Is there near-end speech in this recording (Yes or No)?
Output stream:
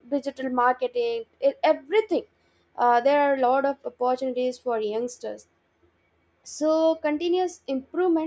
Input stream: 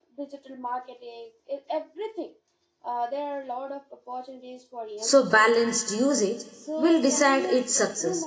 Yes